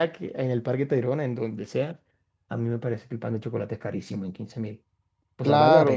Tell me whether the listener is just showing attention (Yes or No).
No